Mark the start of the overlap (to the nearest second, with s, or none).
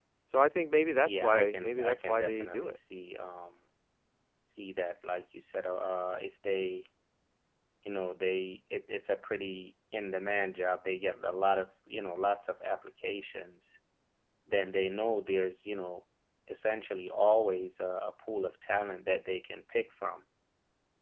1 s